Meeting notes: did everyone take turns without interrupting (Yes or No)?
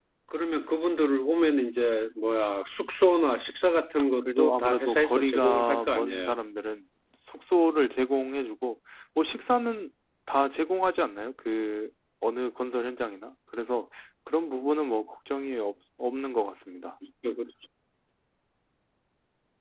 No